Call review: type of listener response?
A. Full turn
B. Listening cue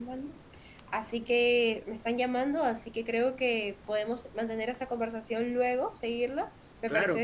A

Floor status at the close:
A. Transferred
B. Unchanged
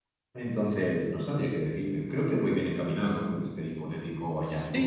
A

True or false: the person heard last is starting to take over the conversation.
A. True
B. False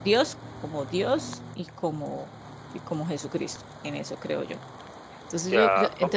B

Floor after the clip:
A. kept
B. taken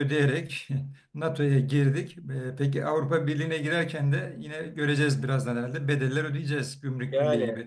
B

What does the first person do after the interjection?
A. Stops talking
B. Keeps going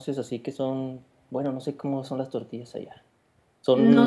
A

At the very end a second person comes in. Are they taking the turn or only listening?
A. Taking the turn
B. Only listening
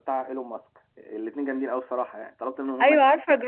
A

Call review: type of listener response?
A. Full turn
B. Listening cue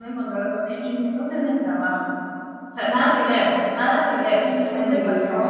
B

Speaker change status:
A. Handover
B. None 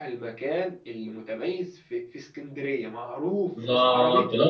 A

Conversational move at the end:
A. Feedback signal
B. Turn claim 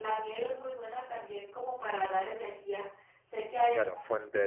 B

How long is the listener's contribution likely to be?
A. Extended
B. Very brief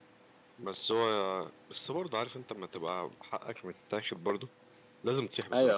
A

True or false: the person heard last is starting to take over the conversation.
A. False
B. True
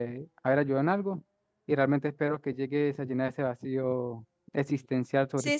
B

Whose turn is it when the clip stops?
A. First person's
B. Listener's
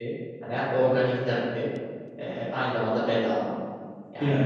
A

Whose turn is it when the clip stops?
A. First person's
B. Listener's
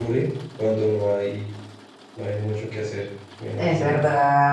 B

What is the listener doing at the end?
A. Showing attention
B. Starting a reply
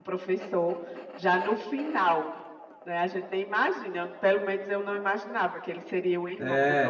B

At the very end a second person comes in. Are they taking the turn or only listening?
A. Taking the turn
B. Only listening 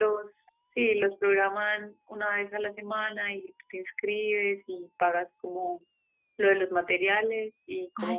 A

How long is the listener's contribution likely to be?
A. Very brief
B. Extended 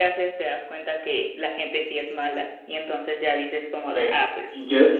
B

